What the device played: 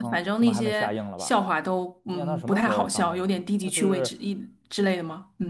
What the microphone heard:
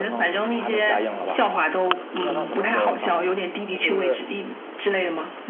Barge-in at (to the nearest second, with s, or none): none